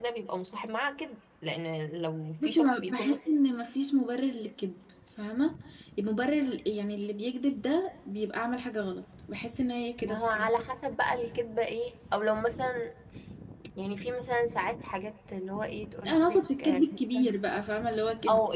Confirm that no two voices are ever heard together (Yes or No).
No